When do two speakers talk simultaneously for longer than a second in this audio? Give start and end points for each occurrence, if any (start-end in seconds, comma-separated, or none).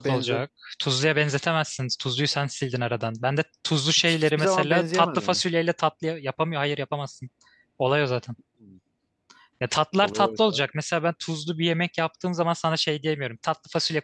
4.1-5.4